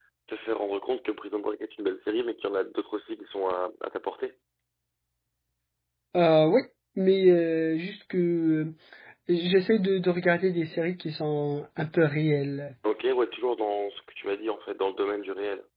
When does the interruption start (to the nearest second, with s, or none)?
none